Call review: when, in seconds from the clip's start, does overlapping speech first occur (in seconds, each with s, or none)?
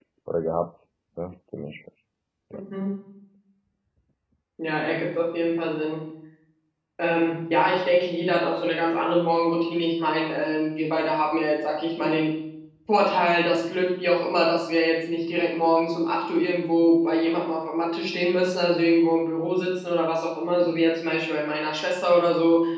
none